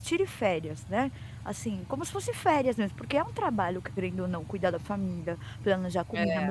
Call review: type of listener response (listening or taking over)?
listening